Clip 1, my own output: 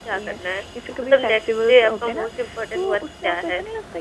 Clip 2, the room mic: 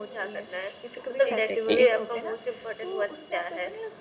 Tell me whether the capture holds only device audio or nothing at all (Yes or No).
No